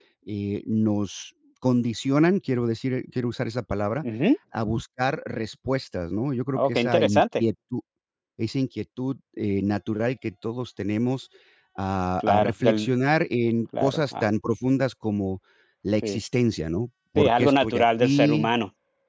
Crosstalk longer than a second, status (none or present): present